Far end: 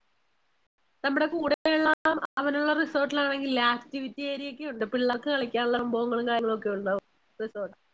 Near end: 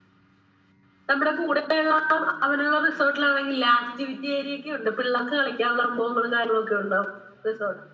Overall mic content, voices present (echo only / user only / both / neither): echo only